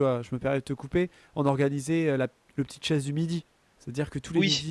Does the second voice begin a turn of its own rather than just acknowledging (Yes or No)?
No